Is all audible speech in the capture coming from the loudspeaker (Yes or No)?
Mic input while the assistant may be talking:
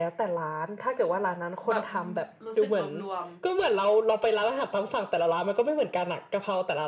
No